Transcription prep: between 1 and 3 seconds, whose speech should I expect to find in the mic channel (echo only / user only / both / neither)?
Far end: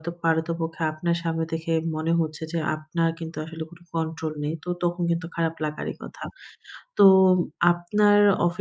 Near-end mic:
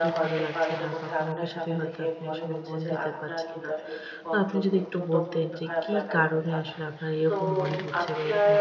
both